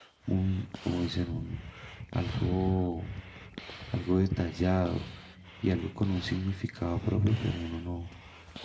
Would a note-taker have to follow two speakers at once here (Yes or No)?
No